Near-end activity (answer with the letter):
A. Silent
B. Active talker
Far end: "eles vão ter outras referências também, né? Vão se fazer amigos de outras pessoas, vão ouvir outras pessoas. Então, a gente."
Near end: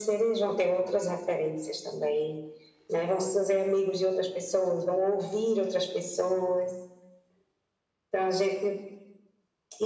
A